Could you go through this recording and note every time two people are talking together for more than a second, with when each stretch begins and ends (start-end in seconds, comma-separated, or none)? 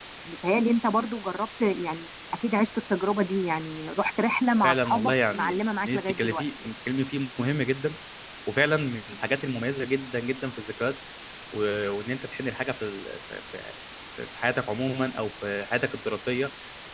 4.6-6.4